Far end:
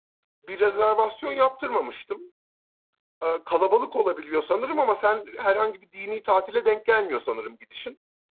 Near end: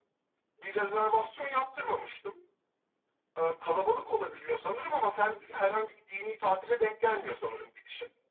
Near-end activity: none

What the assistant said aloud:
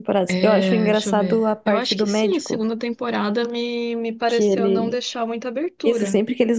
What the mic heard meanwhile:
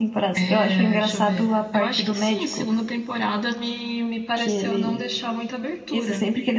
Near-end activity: none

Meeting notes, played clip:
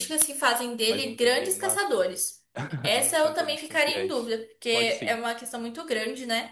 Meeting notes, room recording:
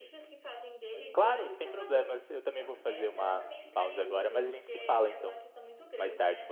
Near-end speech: present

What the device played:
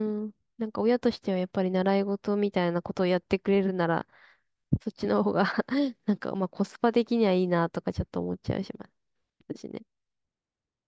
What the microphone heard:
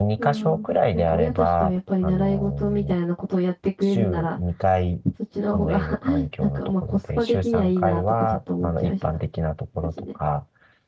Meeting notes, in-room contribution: present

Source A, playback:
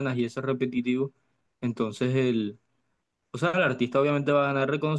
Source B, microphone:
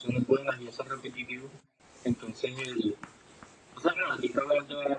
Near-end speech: none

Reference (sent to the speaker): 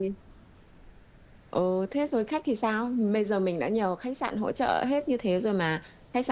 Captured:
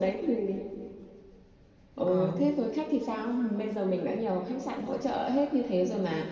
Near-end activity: present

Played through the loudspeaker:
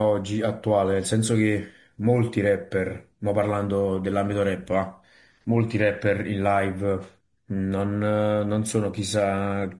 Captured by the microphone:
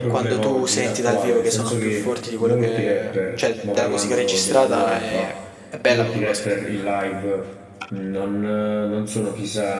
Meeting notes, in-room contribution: present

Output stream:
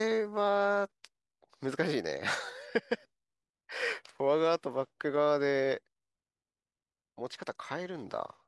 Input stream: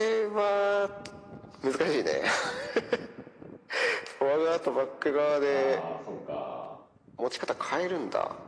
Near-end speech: present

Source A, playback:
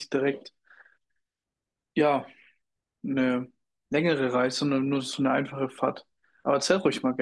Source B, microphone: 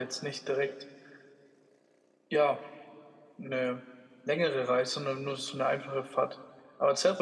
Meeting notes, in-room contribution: none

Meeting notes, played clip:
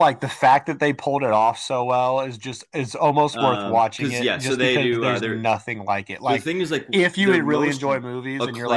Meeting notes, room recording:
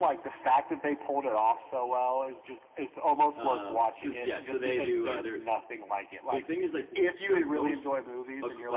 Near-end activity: none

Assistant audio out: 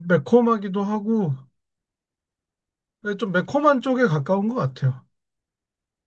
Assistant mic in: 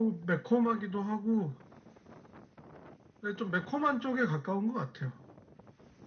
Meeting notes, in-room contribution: none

